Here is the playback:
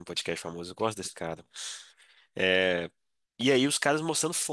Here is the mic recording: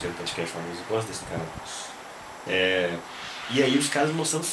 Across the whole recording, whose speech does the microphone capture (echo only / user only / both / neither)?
echo only